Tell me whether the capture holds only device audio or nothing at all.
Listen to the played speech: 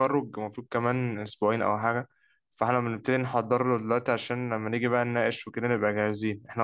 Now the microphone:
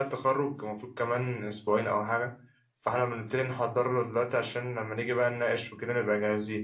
Yes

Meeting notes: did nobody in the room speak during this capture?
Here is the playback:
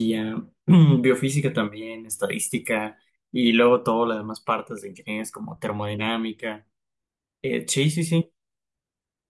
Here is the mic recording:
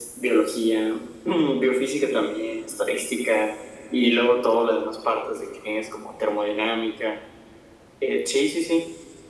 Yes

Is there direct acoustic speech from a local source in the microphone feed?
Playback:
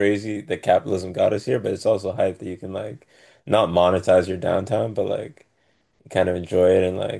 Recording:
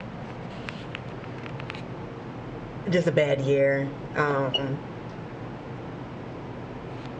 Yes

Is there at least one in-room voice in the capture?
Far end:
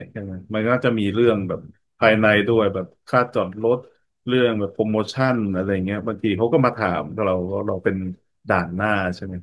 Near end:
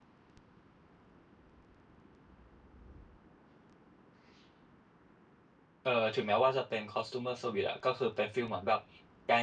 Yes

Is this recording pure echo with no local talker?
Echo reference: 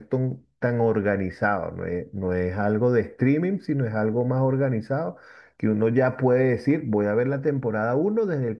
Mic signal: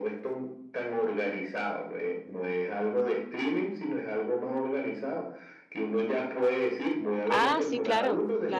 No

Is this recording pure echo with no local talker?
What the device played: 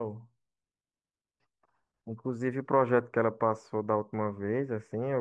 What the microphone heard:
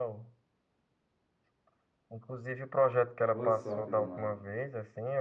No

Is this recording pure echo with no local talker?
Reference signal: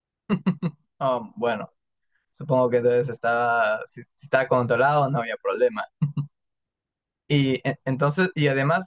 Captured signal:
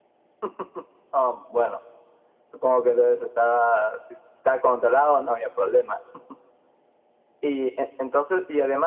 Yes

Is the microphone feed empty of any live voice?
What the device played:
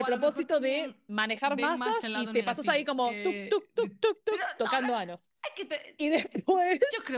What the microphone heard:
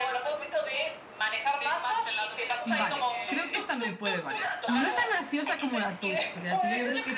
No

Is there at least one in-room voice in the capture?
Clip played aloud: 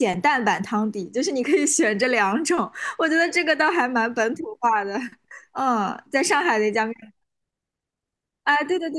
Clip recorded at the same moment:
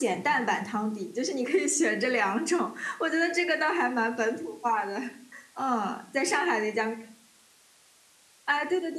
No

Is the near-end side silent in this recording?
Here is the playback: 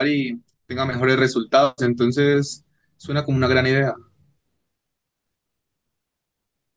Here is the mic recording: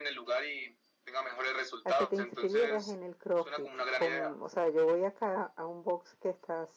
No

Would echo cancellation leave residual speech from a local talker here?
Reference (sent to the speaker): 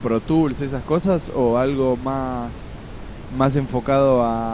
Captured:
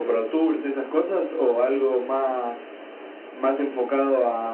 No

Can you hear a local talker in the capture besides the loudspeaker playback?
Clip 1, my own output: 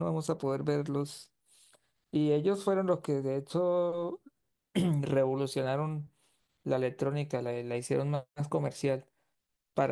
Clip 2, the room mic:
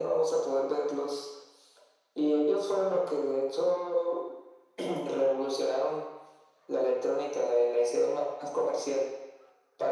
No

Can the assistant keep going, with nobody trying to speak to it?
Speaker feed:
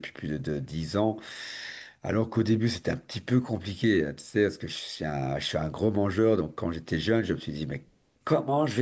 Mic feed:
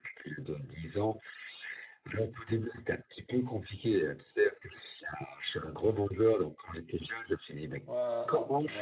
No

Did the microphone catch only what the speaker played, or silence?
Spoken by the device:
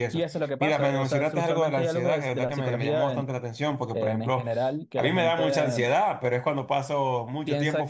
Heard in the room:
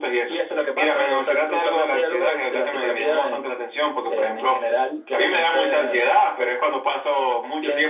Yes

